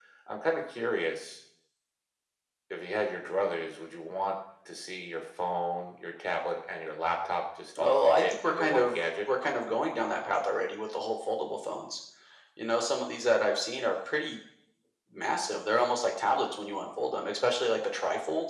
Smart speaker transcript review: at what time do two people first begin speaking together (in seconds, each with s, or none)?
7.8 s